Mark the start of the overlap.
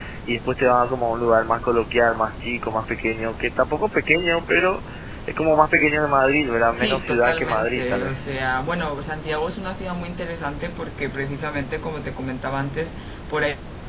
6.8 s

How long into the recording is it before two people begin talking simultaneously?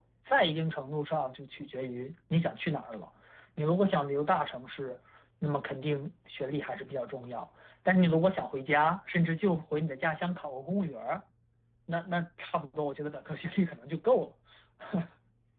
none

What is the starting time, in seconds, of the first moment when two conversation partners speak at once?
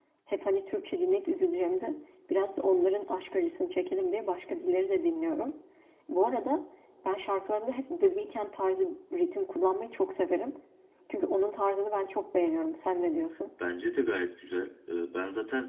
none

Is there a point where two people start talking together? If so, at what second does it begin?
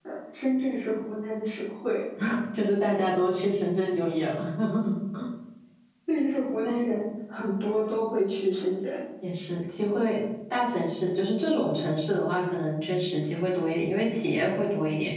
none

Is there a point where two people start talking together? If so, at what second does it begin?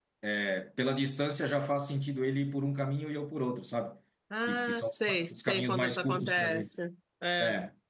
4.5 s

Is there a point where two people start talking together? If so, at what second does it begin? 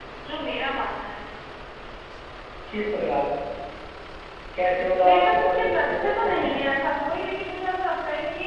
5.0 s

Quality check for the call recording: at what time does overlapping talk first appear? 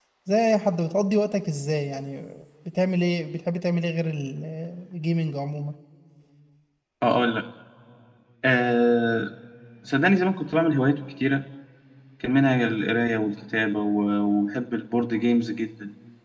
none

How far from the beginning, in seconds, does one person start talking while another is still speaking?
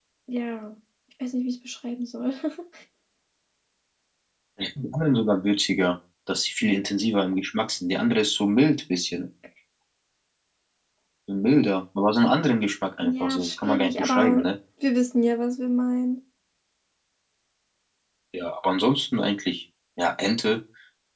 13.0 s

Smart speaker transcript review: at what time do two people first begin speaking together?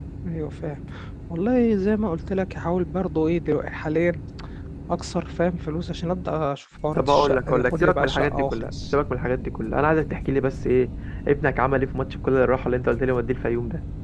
7.0 s

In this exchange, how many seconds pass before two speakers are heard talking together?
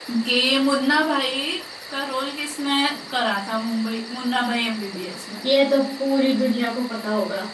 none

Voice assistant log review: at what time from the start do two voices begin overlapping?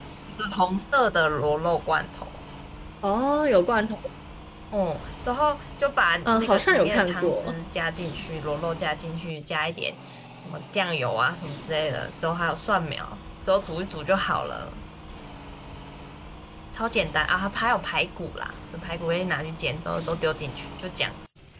6.2 s

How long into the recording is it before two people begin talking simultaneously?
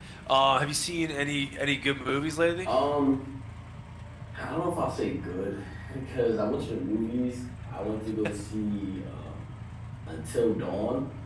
none

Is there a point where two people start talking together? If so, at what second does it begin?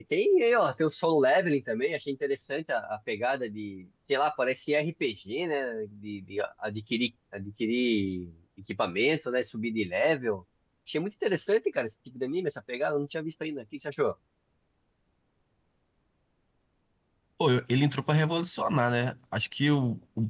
none

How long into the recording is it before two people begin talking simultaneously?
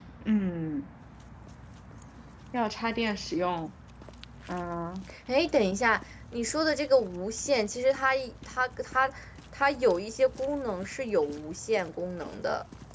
none

